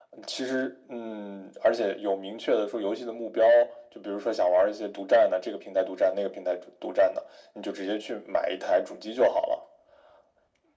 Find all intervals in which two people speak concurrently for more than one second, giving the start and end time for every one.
none

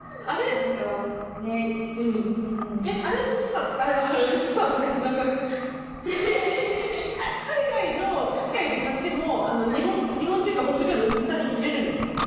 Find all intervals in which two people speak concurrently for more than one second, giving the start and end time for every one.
none

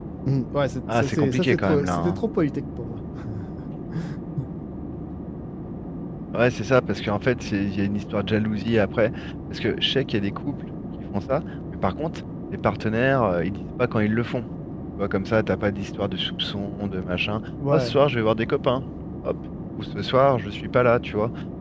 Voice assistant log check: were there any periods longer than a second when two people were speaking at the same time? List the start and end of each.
1.0-2.2

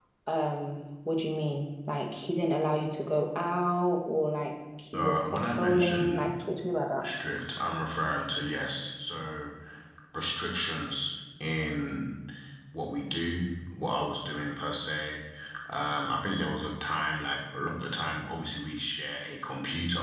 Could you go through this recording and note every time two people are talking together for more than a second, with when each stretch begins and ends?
4.9-6.3

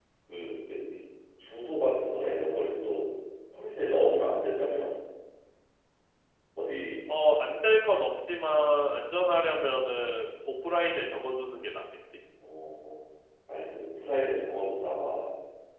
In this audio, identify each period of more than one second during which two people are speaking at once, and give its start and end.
none

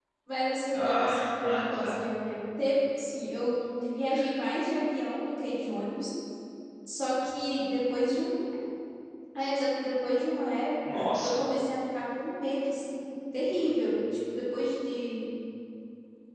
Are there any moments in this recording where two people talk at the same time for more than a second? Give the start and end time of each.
0.7-2.0

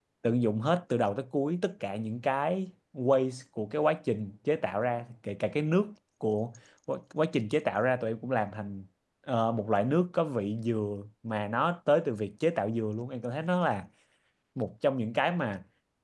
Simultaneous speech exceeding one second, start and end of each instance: none

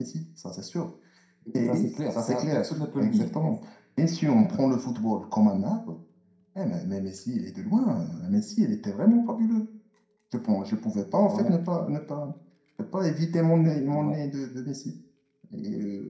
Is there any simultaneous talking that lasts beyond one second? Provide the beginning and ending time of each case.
1.6-3.3

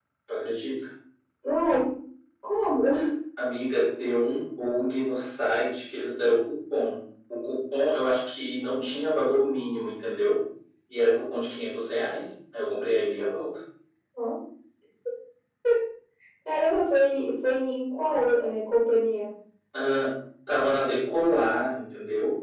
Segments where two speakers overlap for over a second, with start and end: none

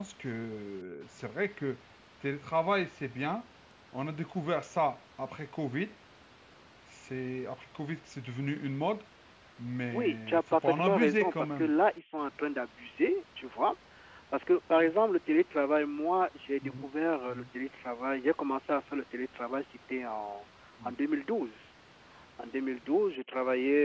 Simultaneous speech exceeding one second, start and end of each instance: 9.9-11.7

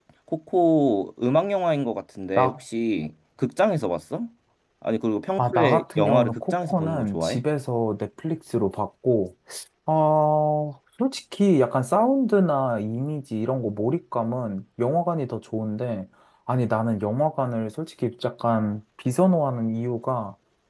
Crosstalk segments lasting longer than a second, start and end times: 5.4-7.4

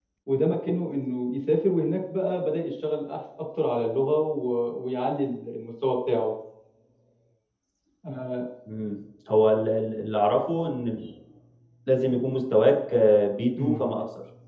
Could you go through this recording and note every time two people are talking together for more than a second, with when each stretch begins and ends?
none

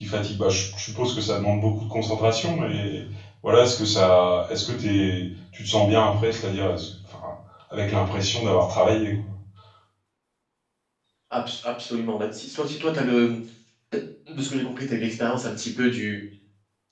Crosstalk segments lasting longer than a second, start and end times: none

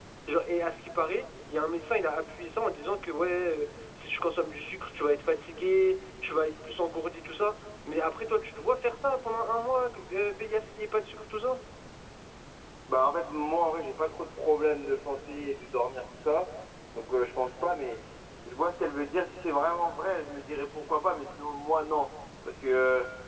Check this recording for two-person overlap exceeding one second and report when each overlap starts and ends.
none

